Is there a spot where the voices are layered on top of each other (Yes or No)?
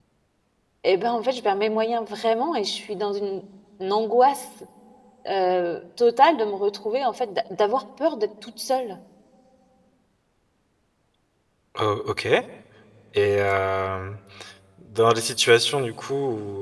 No